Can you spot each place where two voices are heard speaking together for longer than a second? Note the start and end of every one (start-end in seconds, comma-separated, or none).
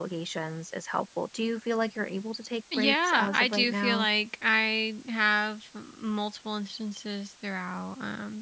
2.8-4.1